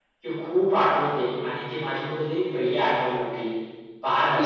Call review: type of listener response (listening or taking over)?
listening